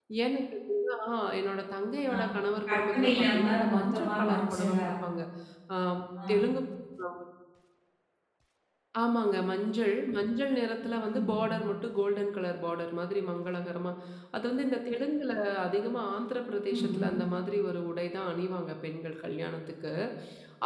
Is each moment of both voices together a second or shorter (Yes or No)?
No